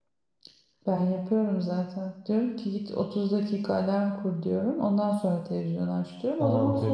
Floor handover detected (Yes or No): Yes